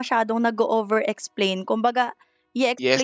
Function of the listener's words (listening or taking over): taking over